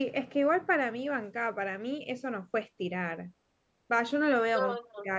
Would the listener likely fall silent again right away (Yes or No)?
Yes